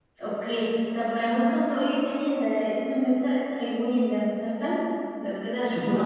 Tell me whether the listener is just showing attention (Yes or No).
No